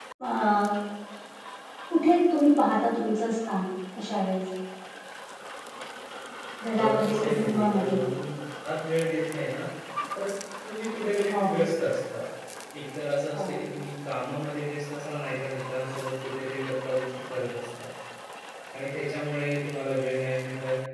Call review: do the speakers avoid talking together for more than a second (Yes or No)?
No